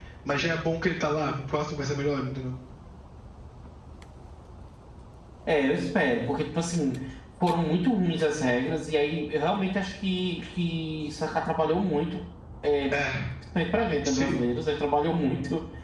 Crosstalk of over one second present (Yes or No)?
No